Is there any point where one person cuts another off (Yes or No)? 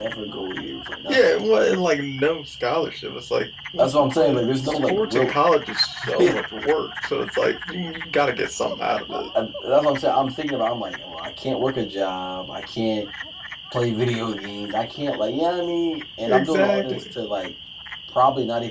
Yes